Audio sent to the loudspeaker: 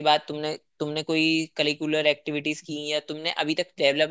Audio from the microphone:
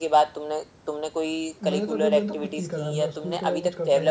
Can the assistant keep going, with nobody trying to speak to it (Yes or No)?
No